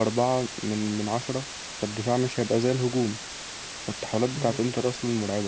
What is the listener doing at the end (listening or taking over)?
listening